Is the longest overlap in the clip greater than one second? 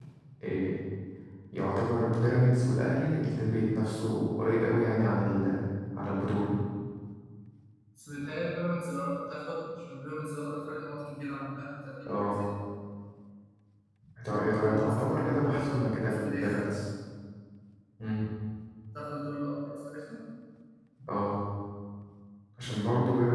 Yes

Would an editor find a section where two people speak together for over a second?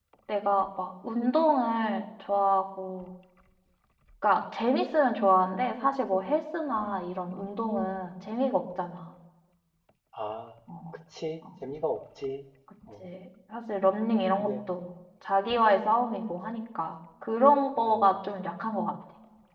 No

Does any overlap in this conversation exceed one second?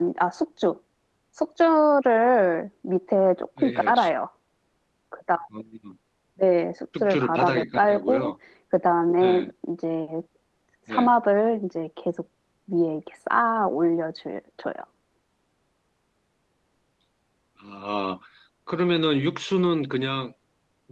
Yes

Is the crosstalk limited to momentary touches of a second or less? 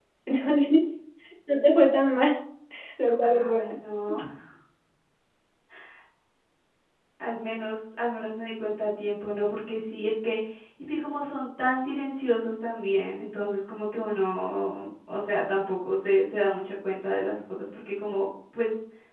Yes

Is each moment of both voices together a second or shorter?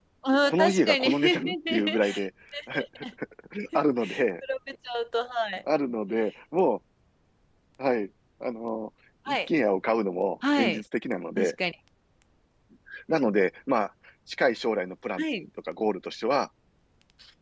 No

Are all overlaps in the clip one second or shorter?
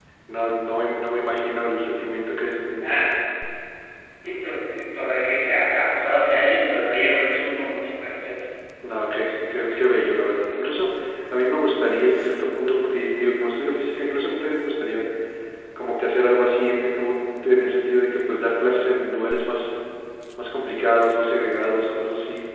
Yes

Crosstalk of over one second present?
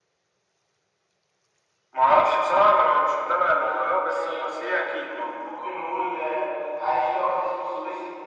Yes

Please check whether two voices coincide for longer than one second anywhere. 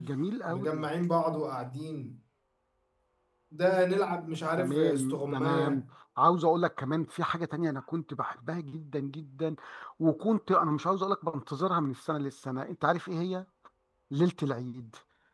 Yes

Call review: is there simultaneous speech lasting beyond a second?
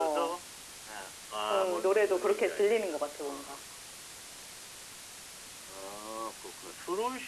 Yes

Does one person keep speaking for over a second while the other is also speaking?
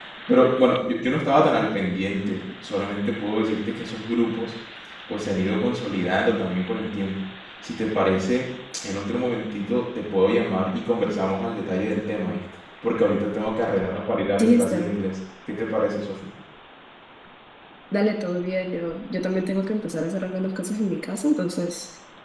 No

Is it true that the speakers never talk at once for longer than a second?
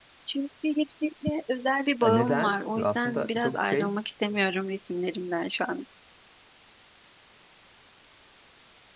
No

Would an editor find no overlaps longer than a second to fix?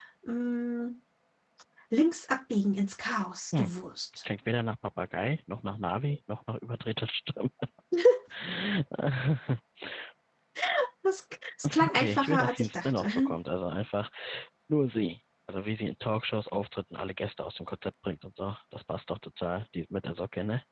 No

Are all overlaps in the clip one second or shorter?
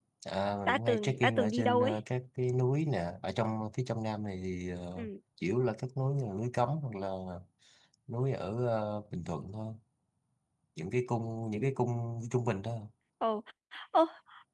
No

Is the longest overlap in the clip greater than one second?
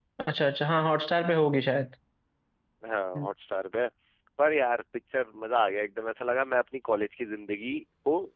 No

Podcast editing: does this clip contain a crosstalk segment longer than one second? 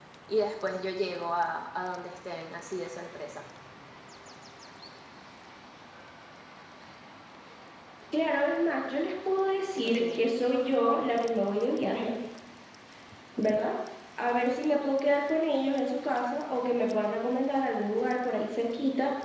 No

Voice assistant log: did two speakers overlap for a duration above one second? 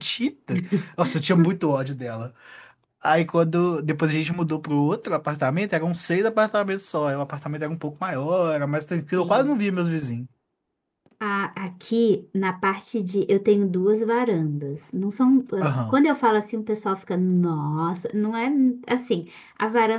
No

